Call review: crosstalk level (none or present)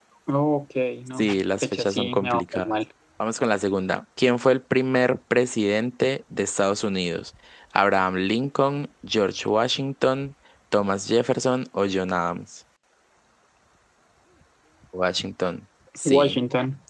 present